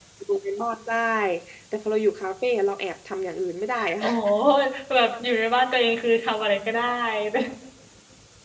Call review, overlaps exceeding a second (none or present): none